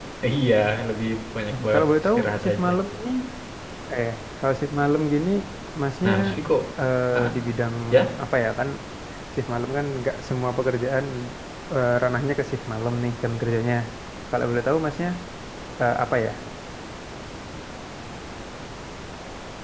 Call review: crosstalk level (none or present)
present